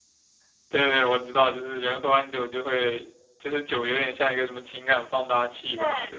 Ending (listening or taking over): taking over